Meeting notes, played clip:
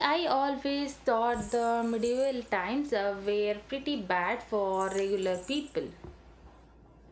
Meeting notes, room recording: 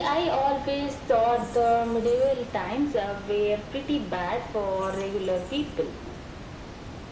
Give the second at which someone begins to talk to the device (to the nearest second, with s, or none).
none